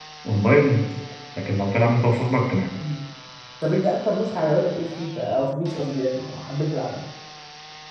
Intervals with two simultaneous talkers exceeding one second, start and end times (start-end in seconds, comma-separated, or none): none